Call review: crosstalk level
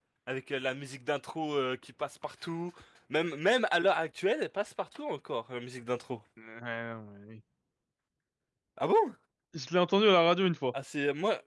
none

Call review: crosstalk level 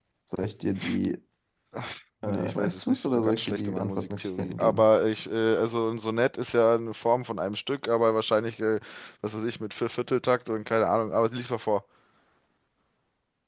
present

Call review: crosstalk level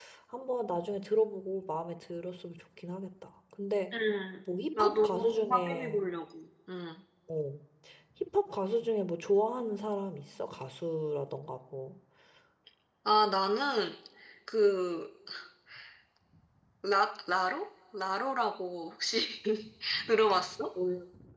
present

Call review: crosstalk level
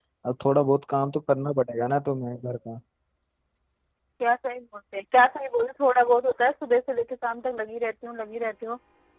none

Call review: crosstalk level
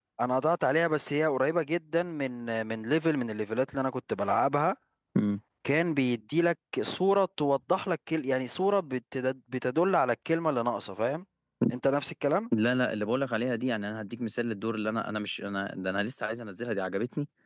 none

